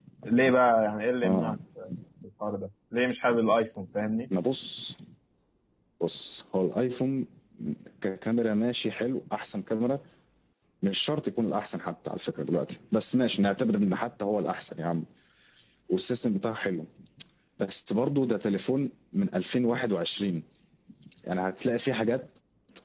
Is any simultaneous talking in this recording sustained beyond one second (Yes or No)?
No